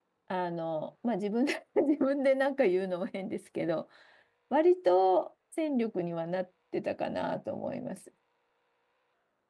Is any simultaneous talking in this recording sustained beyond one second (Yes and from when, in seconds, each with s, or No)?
No